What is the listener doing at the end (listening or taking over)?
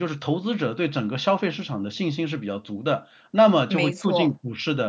listening